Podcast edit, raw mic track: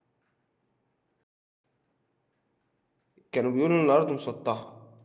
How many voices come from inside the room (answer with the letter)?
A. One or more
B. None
A